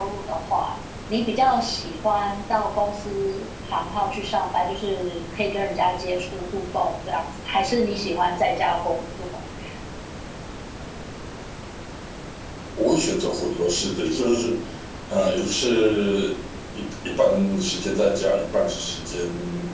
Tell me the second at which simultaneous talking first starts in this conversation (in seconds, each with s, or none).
none